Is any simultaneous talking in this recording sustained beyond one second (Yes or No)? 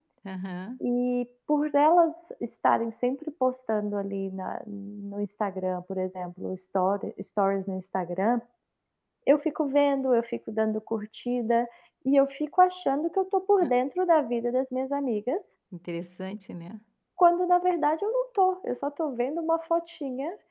No